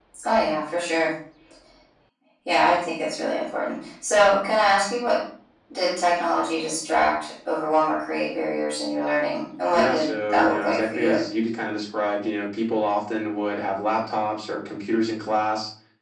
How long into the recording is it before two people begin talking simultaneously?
9.7 s

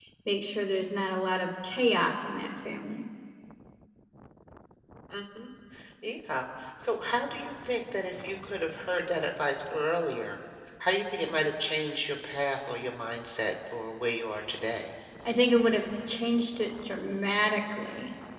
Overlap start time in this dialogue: none

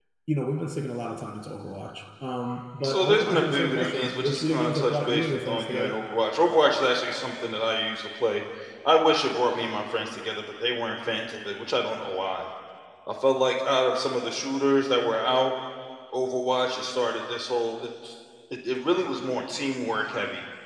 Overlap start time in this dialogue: 2.8 s

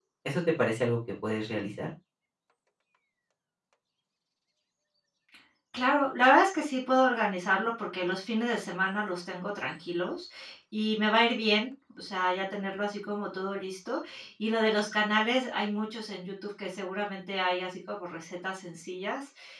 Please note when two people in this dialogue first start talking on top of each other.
none

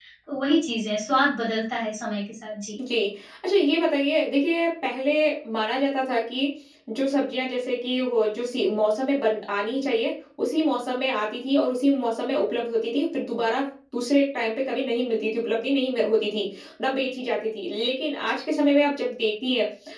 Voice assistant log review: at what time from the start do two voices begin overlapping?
none

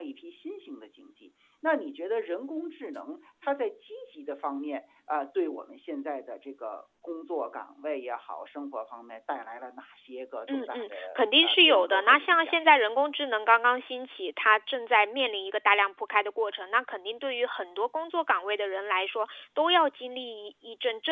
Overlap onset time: 10.5 s

